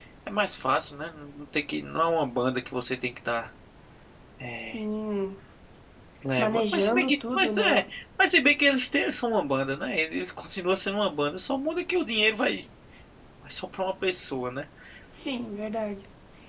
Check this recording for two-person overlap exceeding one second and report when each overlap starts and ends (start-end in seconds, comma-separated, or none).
6.4-7.8